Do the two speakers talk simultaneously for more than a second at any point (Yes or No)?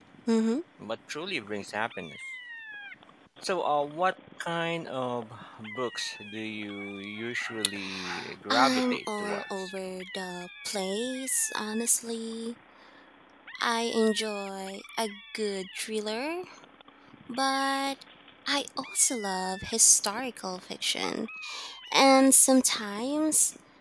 Yes